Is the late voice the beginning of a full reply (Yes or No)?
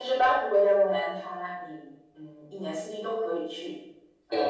No